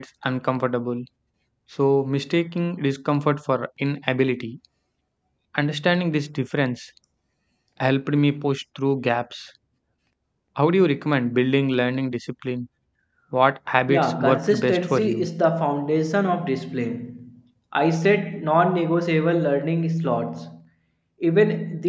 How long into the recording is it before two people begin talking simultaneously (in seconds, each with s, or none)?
13.9 s